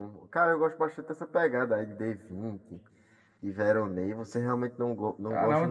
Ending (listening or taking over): taking over